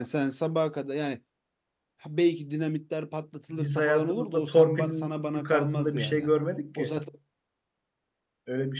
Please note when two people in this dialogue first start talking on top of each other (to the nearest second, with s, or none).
4 s